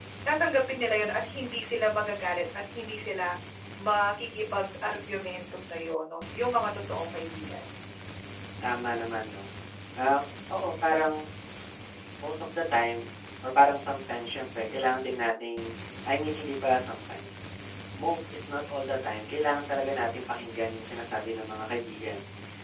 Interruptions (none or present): none